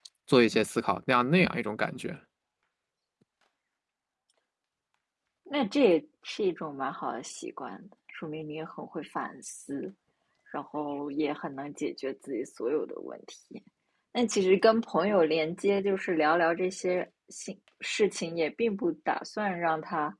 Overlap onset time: none

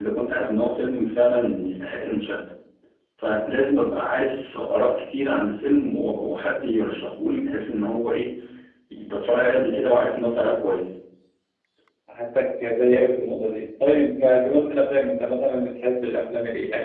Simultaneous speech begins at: none

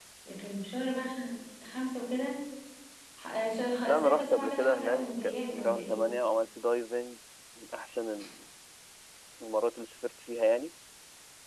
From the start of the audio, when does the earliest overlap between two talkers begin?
4 s

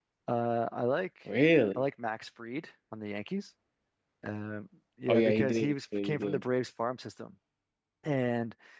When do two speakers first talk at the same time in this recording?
5 s

